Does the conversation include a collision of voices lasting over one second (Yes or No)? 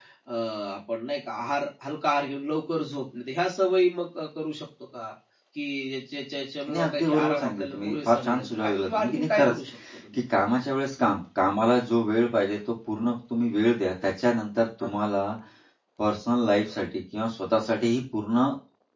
Yes